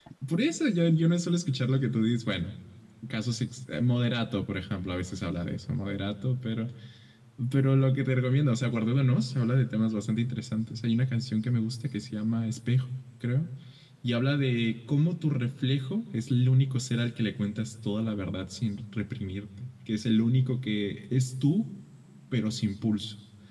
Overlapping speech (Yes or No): No